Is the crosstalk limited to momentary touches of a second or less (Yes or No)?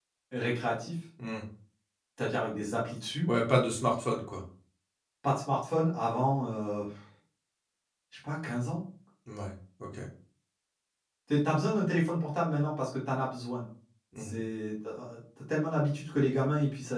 Yes